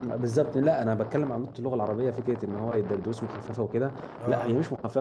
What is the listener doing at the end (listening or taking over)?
listening